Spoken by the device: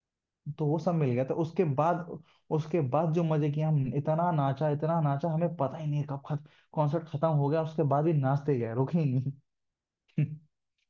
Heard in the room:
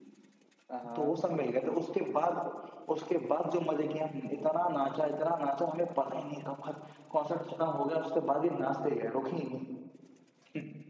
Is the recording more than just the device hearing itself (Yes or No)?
Yes